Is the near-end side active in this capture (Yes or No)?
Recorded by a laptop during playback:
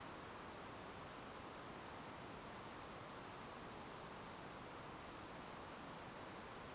No